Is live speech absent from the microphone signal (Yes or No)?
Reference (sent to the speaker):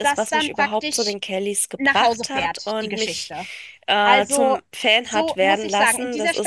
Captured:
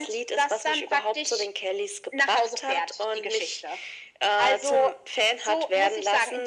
Yes